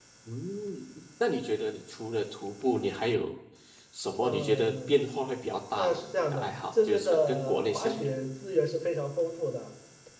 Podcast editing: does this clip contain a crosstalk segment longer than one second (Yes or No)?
Yes